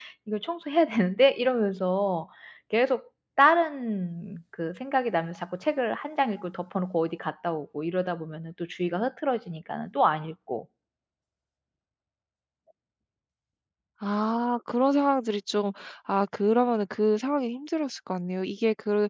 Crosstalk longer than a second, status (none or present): none